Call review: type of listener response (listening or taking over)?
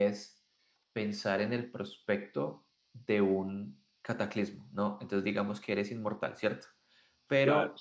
listening